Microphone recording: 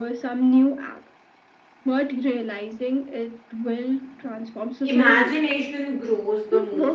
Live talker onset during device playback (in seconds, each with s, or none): 4.8 s